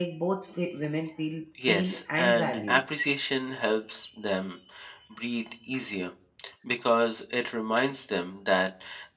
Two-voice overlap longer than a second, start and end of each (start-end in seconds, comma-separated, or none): 1.6-2.8